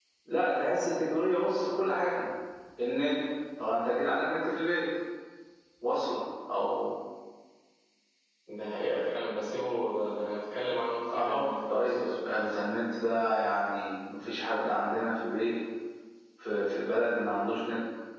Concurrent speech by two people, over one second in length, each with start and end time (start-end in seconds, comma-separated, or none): 11.1-12.4